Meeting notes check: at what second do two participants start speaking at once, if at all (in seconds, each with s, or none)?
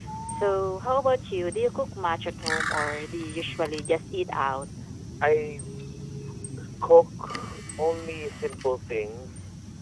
none